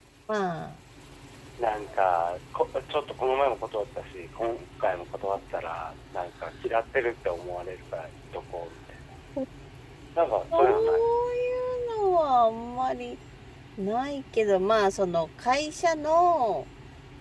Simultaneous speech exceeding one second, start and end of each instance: none

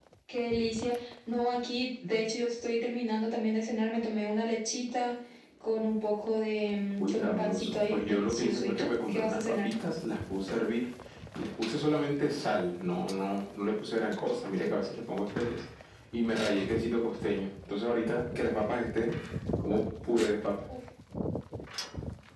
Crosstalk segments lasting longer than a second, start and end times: 7.0-9.7

